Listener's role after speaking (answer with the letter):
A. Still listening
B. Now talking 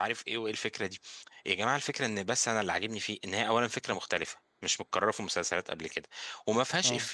A